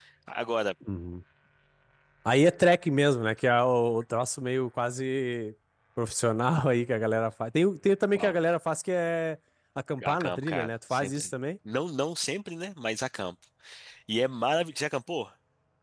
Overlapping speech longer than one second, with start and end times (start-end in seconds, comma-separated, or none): 10.1-11.3